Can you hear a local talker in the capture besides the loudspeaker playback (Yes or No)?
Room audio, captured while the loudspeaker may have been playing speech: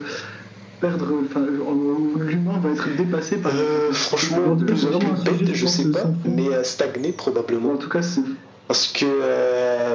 Yes